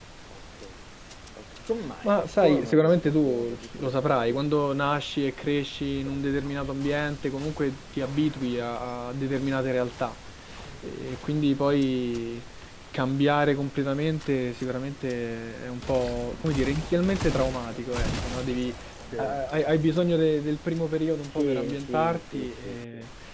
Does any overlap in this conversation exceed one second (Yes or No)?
Yes